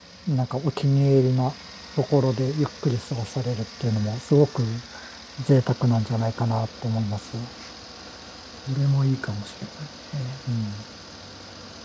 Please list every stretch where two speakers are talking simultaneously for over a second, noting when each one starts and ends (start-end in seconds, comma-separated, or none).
none